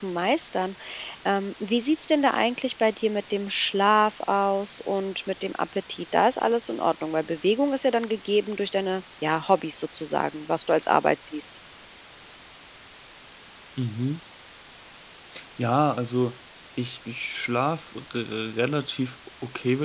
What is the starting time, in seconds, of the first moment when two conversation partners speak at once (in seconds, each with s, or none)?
none